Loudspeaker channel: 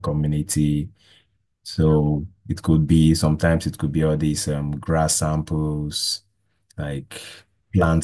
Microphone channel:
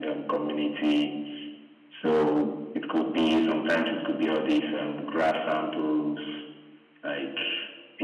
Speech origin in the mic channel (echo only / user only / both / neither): echo only